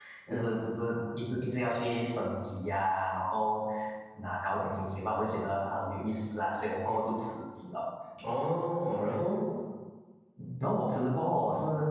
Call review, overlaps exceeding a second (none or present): none